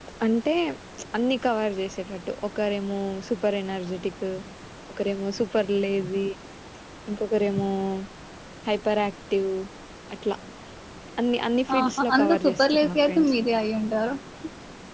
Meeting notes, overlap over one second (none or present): present